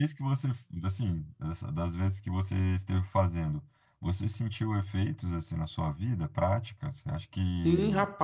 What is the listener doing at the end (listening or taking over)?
taking over